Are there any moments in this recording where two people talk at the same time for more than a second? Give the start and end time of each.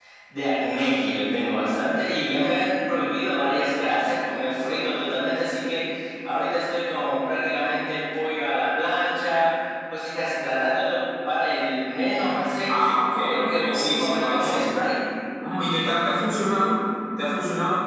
12.7-14.6

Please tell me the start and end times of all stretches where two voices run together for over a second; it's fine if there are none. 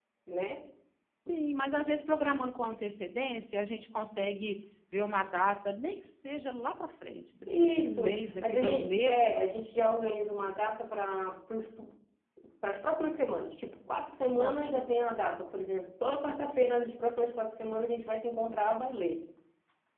7.6-9.5

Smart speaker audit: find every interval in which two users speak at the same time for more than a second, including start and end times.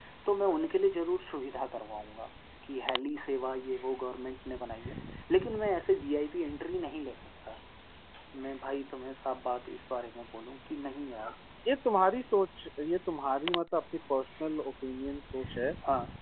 none

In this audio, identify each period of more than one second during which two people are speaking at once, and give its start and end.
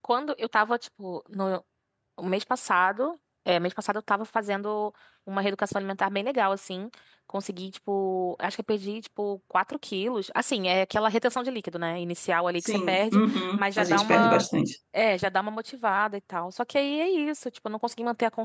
12.6-14.4

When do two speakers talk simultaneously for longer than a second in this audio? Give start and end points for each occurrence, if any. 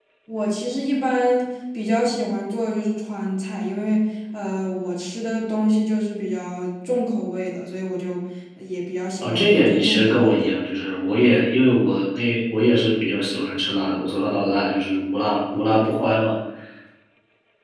9.2-10.5

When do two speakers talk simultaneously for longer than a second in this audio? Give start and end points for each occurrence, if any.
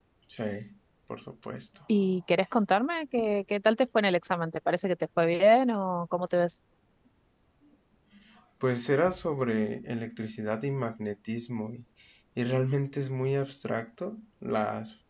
none

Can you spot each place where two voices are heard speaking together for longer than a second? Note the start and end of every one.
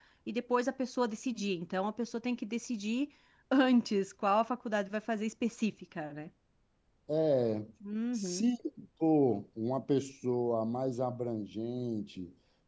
none

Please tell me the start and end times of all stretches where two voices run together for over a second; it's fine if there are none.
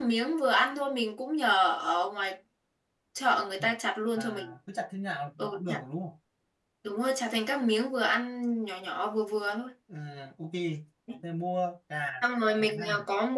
none

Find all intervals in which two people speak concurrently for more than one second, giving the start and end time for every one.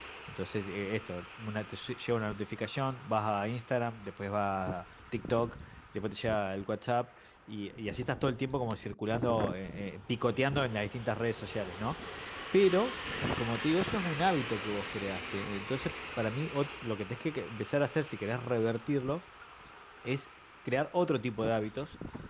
none

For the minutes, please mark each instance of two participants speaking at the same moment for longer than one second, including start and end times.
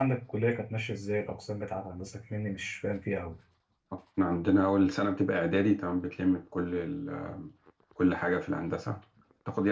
none

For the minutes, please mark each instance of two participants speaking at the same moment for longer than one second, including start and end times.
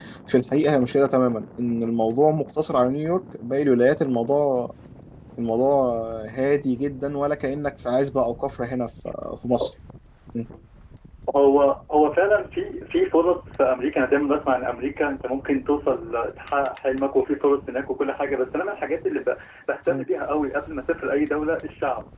none

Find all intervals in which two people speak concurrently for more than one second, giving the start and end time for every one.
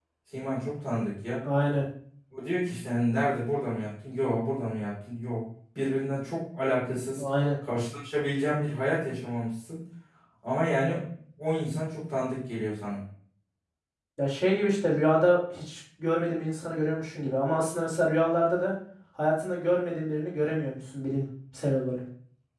none

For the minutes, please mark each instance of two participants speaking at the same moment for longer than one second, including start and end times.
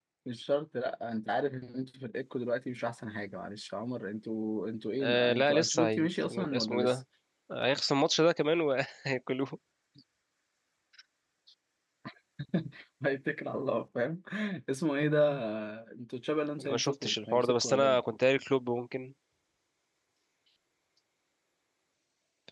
5.0-6.8, 16.6-18.0

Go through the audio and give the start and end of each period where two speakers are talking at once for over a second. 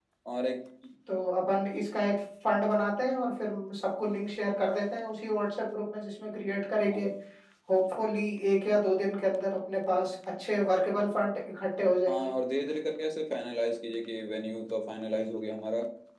none

